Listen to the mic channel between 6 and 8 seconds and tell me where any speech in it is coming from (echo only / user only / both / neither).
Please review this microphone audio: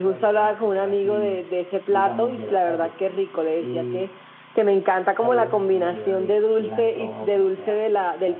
both